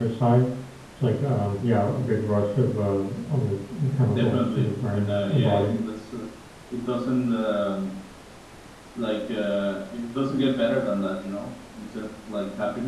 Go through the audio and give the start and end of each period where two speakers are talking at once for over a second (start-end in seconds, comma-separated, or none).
4.2-5.7